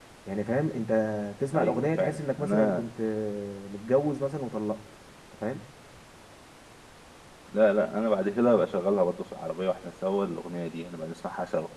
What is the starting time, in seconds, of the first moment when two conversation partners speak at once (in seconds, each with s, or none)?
1.6 s